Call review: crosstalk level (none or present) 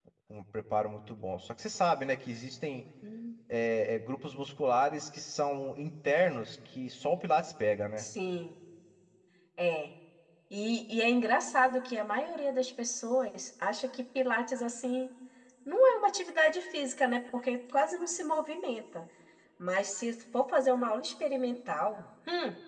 none